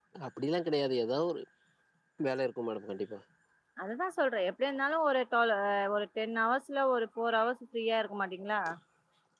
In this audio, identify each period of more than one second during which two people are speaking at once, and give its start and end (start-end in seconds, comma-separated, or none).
none